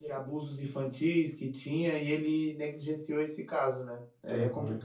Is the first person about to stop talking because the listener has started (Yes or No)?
Yes